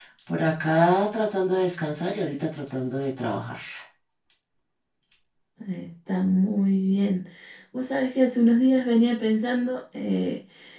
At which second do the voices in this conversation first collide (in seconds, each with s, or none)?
none